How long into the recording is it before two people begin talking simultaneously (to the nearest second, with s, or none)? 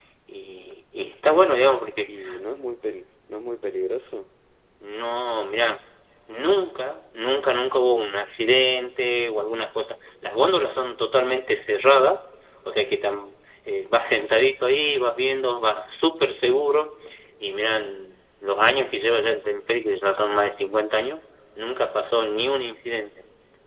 none